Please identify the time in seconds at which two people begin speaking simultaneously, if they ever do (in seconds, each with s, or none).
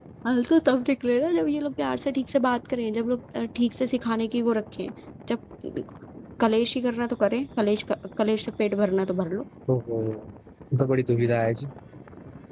none